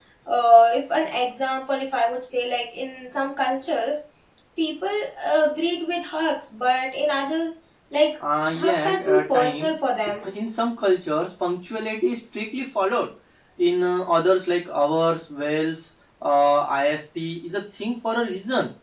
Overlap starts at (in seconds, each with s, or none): 8.5 s